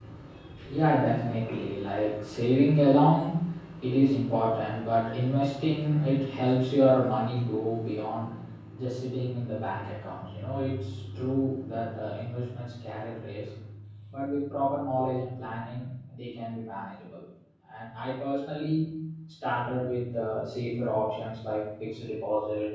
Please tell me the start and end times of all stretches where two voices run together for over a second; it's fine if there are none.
none

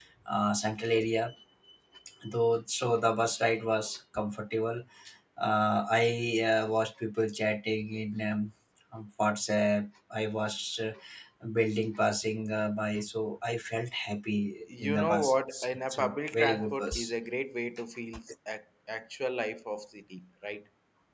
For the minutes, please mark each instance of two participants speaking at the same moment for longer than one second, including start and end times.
14.8-17.1

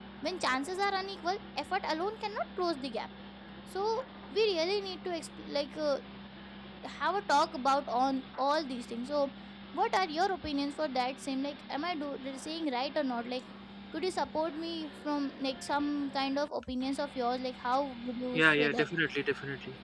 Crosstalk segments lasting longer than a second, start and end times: none

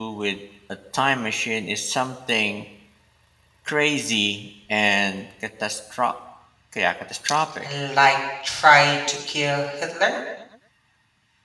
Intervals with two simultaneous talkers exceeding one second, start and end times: none

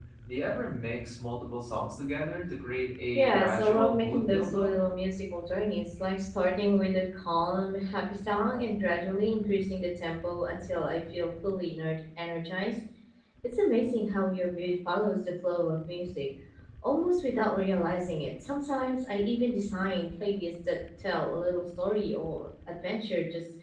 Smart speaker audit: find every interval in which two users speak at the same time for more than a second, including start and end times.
3.1-4.7

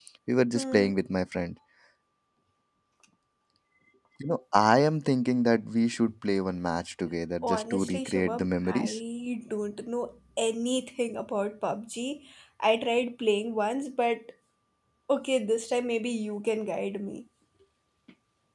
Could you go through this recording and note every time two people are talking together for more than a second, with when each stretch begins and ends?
7.4-9.0

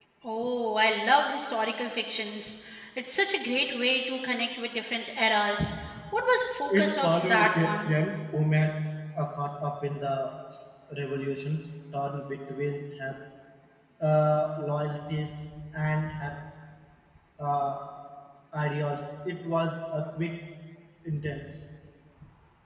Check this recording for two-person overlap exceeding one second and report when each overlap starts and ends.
6.7-7.9

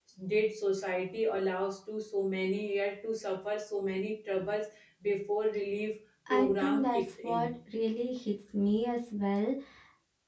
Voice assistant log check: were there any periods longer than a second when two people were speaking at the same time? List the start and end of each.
6.3-7.5

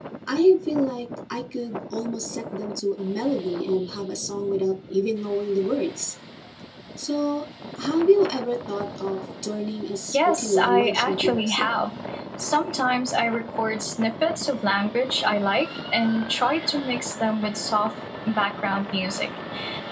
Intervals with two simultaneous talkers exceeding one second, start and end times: 10.1-11.7

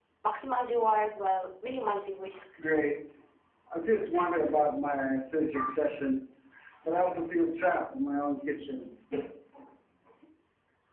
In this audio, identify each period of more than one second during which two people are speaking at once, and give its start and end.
none

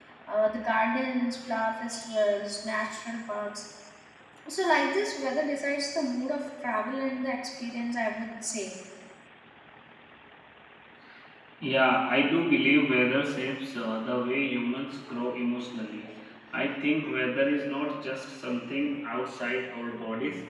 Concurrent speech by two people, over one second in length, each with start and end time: none

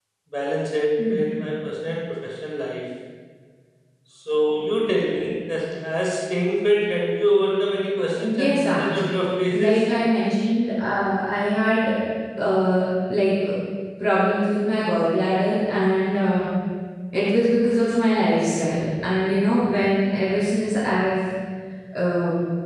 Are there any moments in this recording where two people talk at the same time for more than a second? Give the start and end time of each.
8.2-9.8

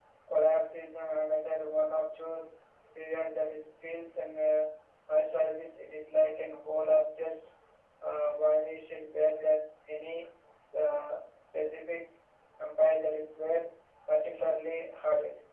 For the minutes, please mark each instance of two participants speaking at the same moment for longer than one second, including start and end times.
none

